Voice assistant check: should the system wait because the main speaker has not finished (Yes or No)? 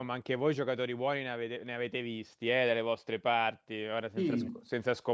Yes